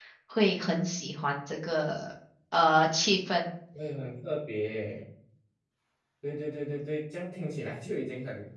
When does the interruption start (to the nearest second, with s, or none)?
none